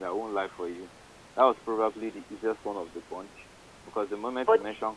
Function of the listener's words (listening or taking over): listening